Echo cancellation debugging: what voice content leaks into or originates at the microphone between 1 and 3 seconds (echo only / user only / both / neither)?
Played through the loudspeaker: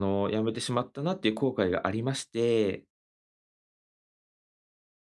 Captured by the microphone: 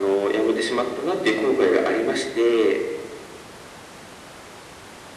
echo only